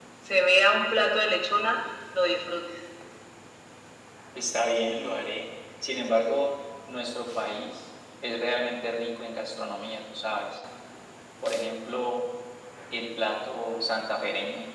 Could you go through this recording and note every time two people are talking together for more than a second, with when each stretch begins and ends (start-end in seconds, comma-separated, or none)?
none